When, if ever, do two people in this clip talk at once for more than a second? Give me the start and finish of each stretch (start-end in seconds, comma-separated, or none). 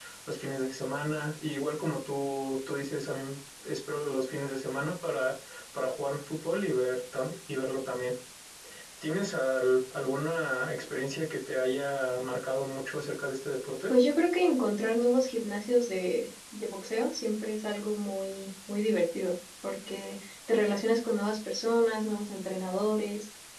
none